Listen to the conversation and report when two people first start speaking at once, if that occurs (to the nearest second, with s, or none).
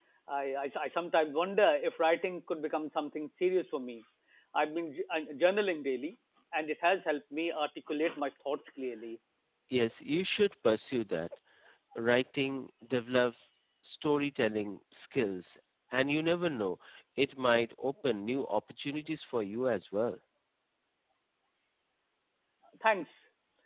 none